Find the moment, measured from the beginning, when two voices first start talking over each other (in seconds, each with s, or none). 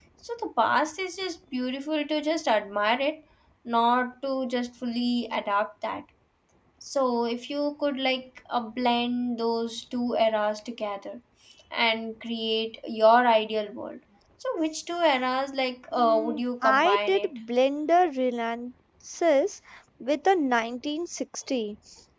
16.0 s